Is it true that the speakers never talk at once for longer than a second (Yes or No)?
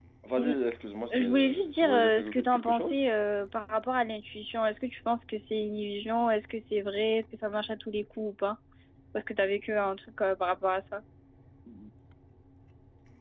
No